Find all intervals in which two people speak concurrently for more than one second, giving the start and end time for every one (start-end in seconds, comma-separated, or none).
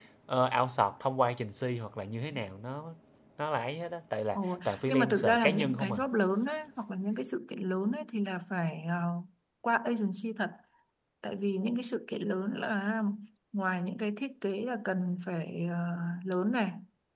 4.3-6.0